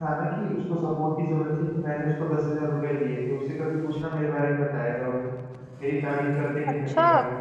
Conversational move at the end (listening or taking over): taking over